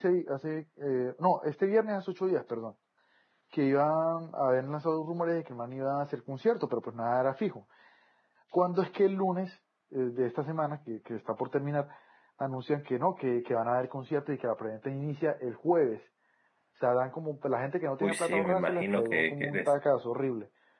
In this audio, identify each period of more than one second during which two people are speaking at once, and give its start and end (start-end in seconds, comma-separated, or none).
18.0-19.7